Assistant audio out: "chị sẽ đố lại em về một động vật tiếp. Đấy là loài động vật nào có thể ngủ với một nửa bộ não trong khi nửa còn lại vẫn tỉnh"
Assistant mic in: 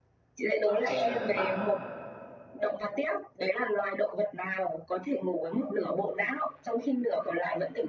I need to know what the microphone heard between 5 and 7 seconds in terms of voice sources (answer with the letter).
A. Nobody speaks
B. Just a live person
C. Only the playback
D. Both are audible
C